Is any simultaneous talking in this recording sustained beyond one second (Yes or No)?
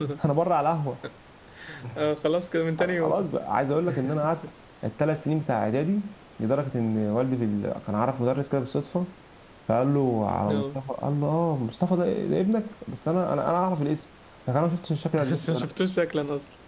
No